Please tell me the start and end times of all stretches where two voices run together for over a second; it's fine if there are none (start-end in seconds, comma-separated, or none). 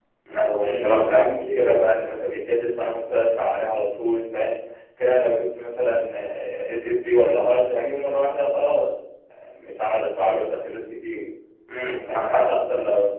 0.6-1.9